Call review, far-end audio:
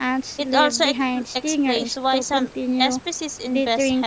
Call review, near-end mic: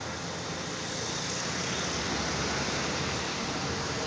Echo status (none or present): none